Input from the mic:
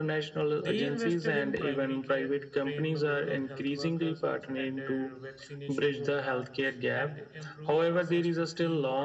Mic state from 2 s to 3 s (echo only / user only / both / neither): both